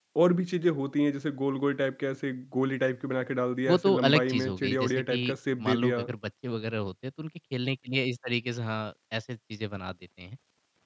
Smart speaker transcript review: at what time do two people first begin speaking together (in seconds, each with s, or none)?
3.7 s